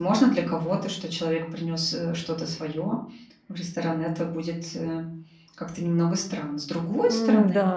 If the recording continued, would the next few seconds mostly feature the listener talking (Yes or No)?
Yes